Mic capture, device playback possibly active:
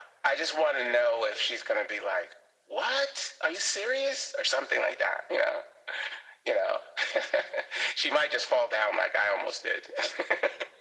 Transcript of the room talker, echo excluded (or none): none